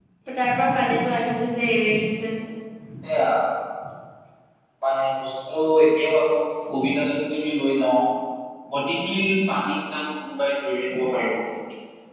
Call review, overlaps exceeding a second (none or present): none